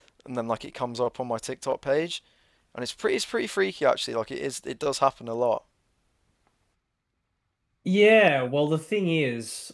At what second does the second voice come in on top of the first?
none

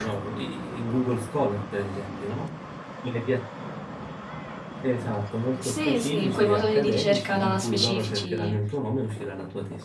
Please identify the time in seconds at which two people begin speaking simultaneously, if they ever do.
5.6 s

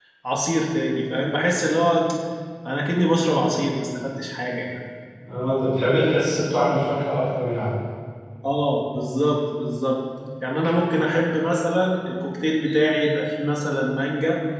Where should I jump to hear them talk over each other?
none

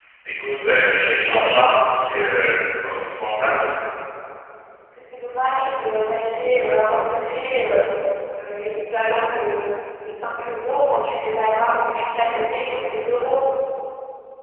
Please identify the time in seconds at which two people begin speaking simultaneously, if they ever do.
none

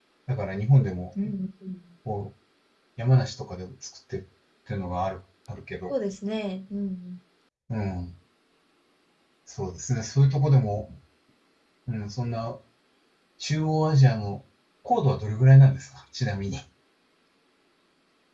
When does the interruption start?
none

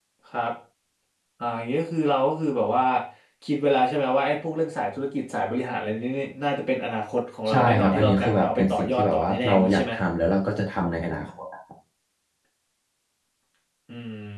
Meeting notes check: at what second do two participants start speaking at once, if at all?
7.5 s

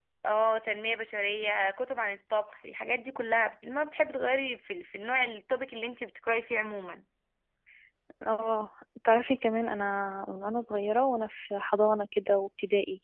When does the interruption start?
none

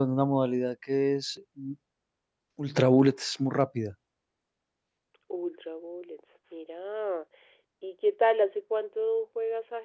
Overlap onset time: none

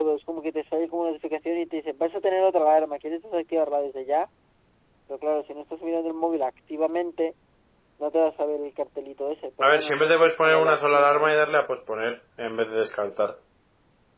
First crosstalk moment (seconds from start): 9.6 s

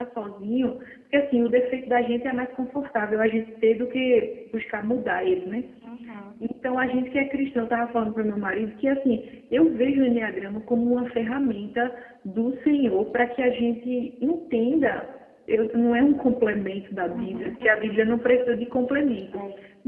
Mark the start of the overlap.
17.1 s

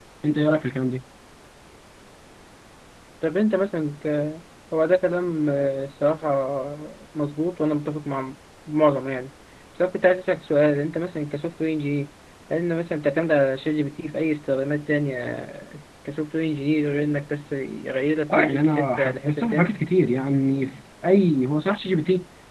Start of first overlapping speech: 18.3 s

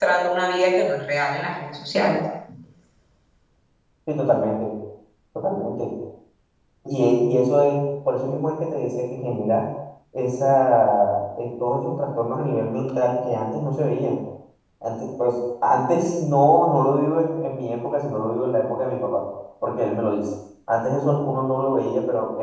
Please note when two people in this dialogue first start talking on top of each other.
none

